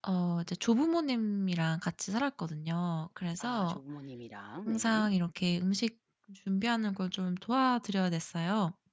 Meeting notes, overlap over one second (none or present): none